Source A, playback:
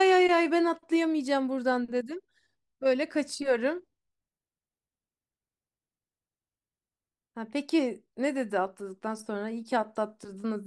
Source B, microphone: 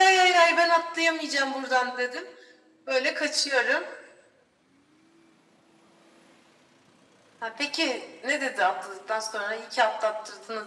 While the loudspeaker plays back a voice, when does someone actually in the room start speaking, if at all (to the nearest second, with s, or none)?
none